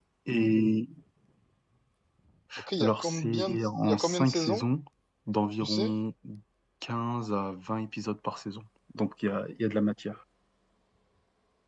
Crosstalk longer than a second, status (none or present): present